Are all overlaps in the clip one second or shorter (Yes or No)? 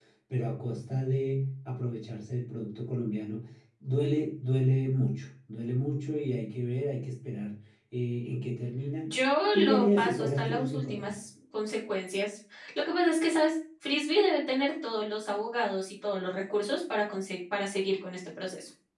No